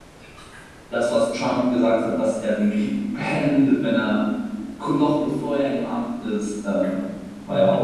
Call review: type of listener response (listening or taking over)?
taking over